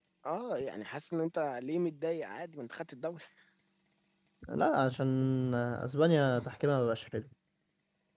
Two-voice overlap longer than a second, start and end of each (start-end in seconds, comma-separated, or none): none